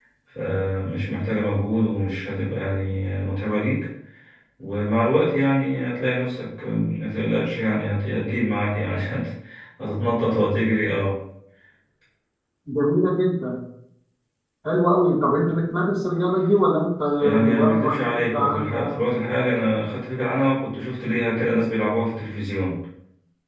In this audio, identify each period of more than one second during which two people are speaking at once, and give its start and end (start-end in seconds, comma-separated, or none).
17.2-19.0